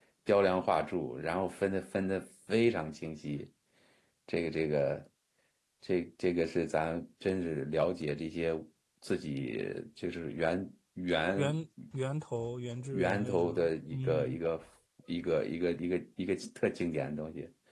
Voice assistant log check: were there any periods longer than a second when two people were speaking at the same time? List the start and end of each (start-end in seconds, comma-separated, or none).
12.9-14.4